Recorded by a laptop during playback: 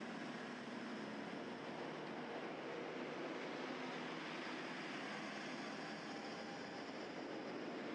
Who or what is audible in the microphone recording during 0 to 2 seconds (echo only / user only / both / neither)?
neither